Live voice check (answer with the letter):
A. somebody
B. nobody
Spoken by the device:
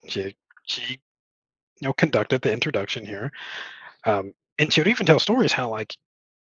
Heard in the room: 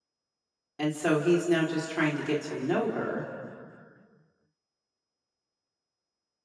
A